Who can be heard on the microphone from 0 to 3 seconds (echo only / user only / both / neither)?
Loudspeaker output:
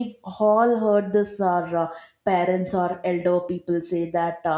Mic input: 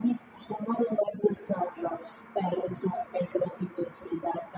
echo only